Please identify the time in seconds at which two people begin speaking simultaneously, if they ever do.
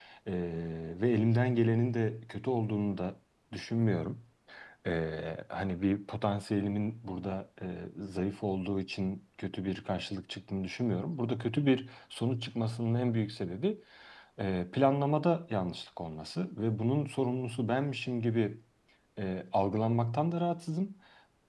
none

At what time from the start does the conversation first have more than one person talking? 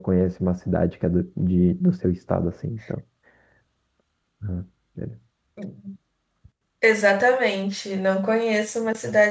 none

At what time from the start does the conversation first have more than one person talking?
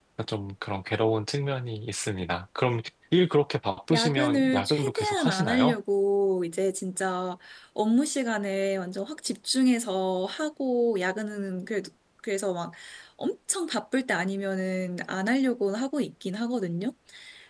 4 s

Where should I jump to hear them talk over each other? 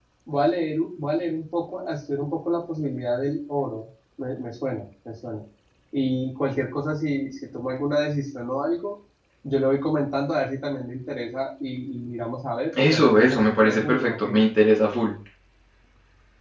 13 s

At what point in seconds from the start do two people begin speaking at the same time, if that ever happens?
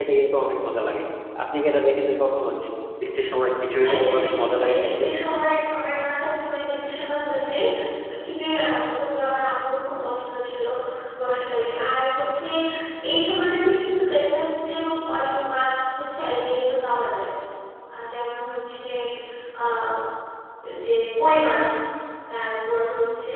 4 s

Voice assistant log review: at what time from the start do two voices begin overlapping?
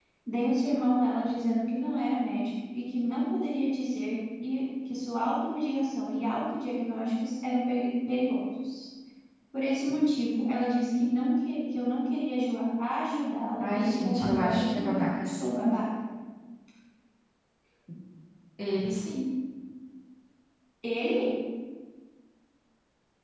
14 s

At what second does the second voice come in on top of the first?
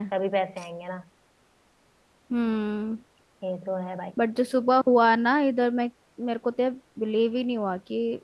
none

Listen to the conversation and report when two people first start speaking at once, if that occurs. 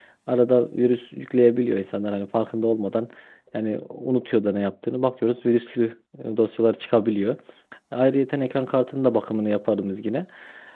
none

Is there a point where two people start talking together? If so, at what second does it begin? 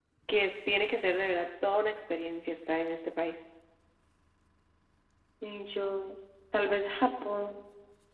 none

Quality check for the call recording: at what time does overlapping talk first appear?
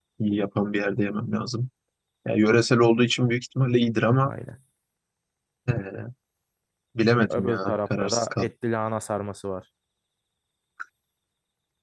7 s

